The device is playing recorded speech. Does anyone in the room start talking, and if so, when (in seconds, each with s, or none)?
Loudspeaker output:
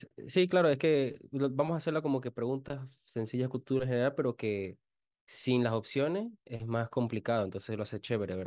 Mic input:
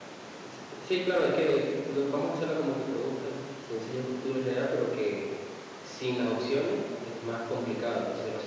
none